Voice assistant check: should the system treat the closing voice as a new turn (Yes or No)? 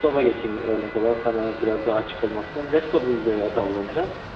No